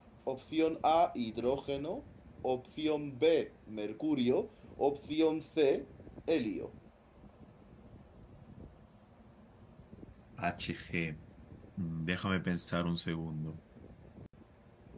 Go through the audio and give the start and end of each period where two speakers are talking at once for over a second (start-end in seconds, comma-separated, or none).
none